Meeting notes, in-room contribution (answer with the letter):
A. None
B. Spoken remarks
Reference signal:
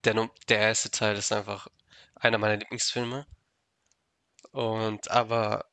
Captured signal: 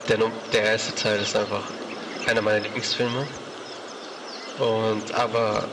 A